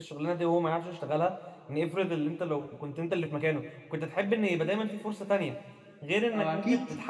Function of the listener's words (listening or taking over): listening